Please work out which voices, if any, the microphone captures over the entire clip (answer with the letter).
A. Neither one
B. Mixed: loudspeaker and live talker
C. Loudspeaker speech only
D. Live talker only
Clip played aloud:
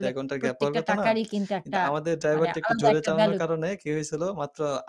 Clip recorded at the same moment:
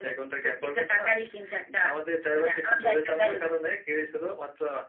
C